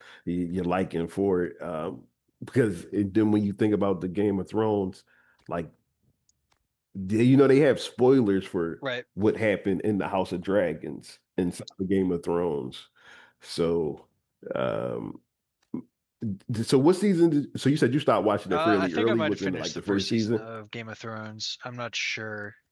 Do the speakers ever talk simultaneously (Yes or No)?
Yes